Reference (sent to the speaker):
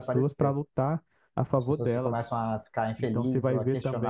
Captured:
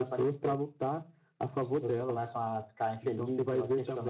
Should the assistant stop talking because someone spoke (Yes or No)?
No